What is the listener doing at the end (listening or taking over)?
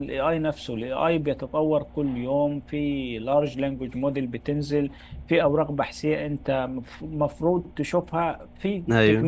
listening